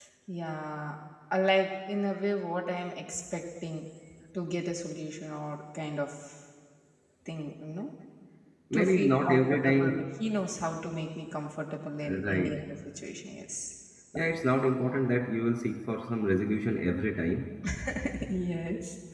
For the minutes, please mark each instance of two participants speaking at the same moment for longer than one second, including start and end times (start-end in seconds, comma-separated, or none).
8.8-10.0